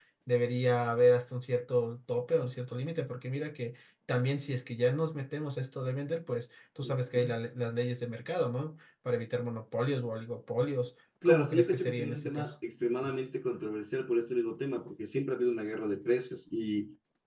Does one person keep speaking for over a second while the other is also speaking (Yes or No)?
Yes